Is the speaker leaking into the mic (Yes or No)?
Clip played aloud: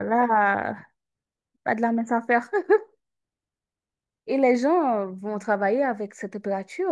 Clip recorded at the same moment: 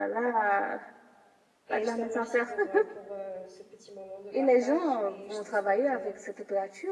Yes